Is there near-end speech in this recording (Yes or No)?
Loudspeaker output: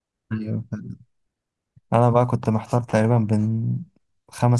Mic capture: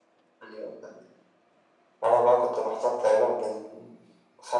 No